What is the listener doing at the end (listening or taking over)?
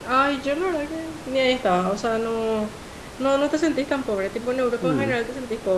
listening